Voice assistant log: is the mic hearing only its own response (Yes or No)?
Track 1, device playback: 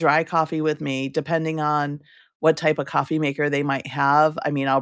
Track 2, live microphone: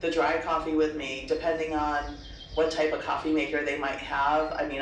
Yes